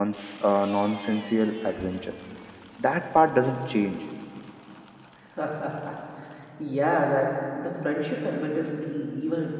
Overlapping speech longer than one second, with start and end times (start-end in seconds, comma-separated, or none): none